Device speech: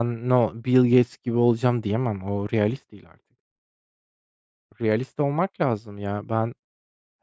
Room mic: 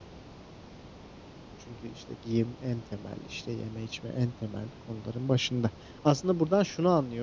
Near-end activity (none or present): present